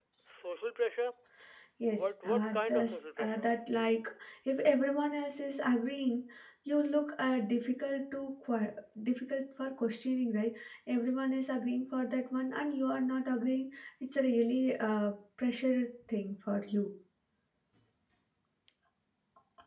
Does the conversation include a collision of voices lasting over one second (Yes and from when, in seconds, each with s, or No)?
Yes, from 1.9 s